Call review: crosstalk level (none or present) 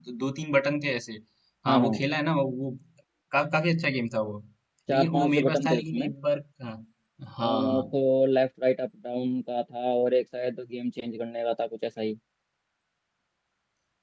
present